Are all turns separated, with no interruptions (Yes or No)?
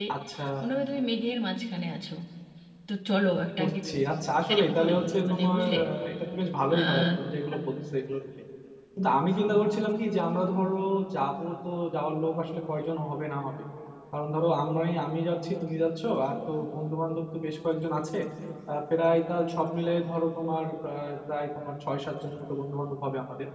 No